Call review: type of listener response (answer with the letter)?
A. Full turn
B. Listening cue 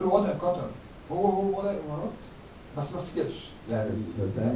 A